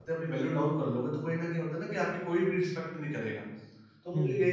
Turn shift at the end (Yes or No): No